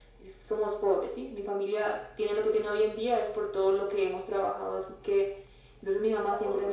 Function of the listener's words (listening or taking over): listening